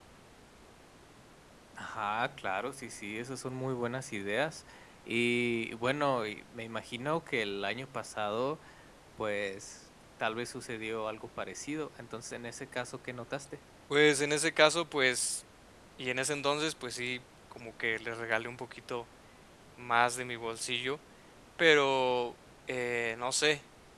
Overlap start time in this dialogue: none

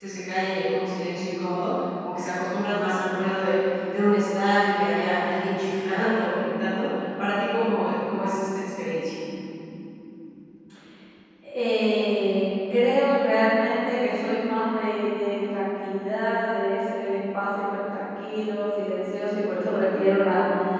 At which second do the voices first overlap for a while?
none

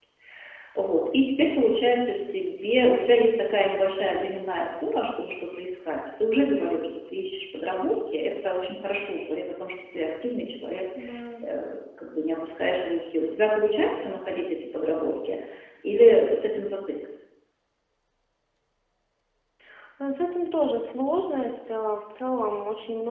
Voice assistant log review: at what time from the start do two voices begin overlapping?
none

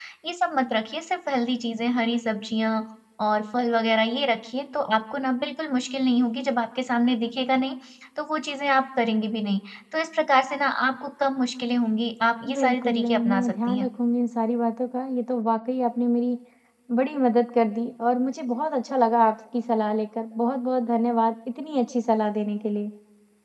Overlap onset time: 12.4 s

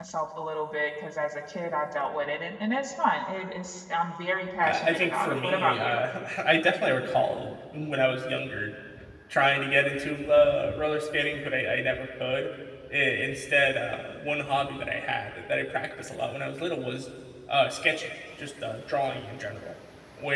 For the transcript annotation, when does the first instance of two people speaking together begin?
4.6 s

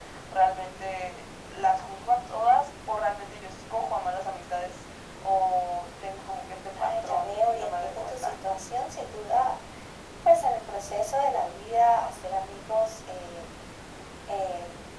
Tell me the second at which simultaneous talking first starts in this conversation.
6.8 s

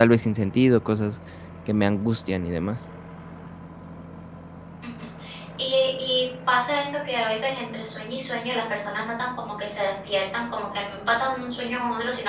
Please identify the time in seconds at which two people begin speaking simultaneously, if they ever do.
none

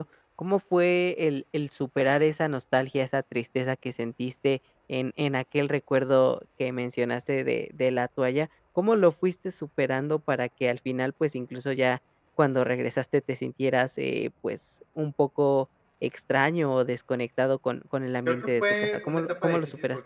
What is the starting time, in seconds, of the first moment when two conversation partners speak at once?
18.2 s

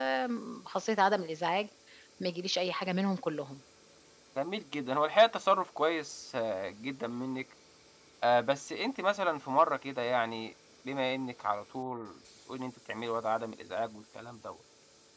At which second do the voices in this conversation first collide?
none

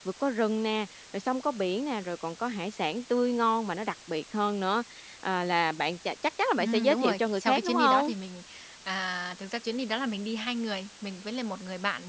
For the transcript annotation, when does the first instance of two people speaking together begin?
6.6 s

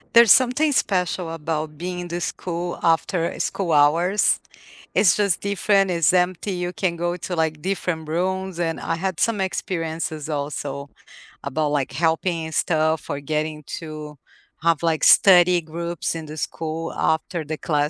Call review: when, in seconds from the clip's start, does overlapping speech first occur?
none

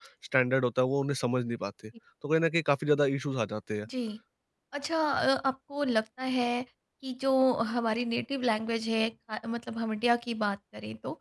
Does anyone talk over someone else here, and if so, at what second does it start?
none

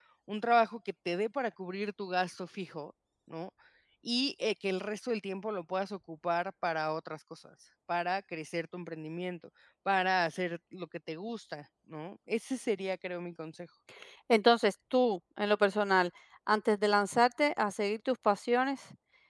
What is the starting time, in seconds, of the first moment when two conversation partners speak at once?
none

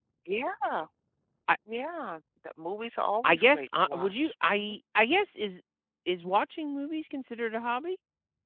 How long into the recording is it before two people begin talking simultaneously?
3.2 s

